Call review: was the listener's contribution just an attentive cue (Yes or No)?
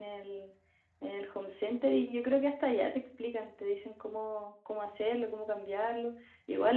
Yes